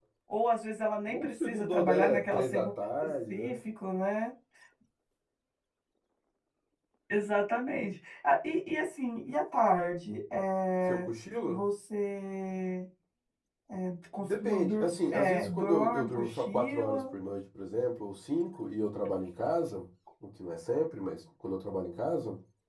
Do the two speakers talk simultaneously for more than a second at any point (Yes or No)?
Yes